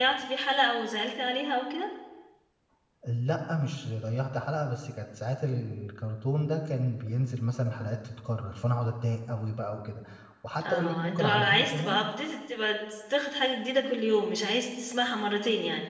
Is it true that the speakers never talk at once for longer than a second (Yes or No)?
No